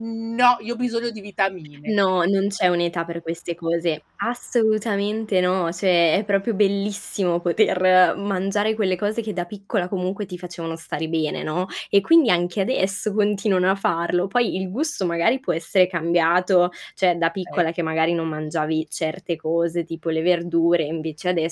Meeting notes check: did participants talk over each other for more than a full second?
No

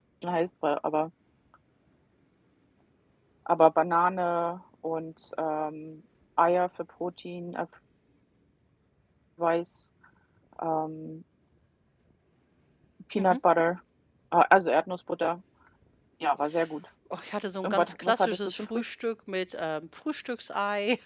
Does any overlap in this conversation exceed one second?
Yes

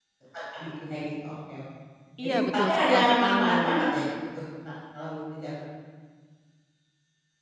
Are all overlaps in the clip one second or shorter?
No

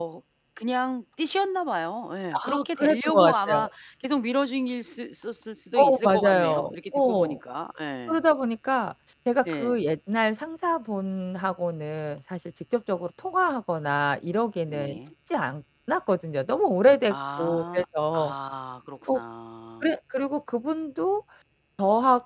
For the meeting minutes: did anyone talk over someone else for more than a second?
Yes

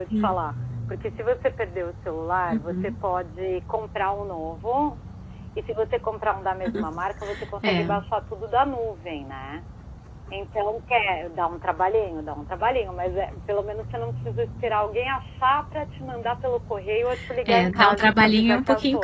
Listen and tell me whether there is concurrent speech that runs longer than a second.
Yes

